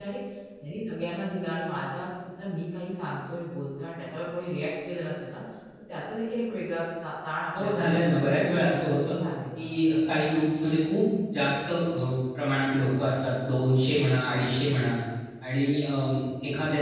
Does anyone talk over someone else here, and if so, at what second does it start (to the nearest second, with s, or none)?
8 s